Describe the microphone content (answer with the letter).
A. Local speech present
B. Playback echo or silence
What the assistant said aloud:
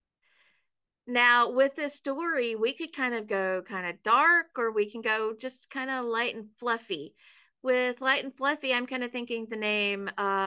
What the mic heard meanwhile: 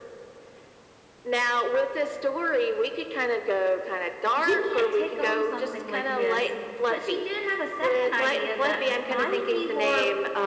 A